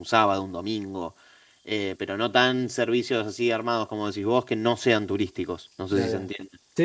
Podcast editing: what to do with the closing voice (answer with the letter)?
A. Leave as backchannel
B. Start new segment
B